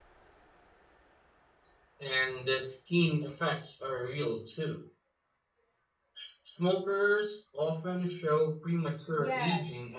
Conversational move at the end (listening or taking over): taking over